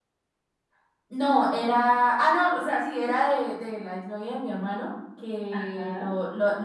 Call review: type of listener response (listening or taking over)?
listening